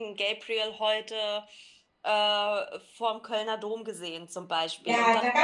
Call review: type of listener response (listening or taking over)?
taking over